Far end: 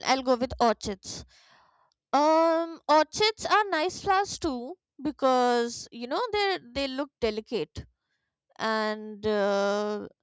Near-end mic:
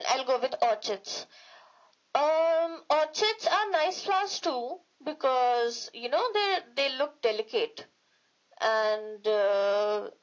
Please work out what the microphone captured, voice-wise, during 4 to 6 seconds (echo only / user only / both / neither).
echo only